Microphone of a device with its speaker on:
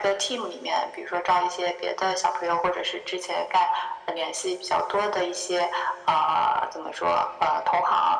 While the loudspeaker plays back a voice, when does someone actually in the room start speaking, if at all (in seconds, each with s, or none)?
none